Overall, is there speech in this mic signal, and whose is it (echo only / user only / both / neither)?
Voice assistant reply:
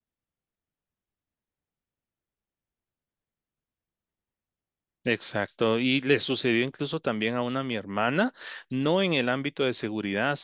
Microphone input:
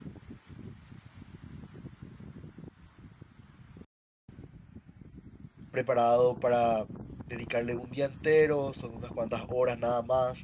user only